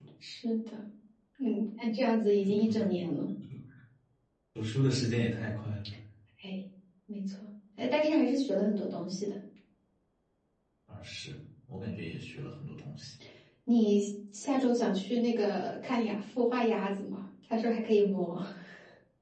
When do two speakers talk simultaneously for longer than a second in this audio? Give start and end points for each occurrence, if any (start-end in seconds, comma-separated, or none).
none